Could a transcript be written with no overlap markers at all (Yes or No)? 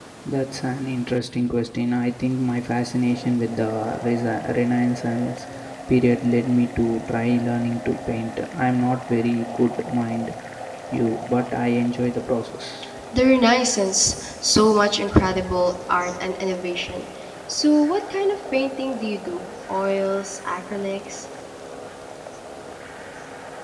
Yes